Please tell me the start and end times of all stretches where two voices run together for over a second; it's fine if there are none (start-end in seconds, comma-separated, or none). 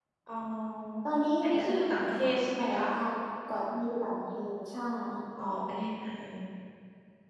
1.4-2.9